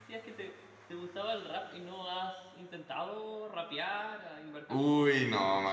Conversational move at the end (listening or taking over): taking over